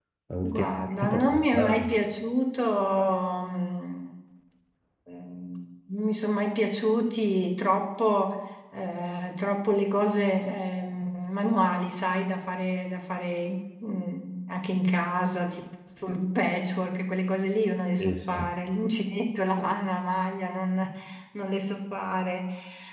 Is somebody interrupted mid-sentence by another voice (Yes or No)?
Yes